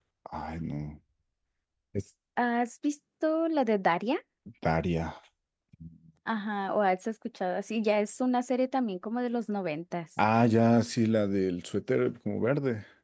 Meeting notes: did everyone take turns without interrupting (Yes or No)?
Yes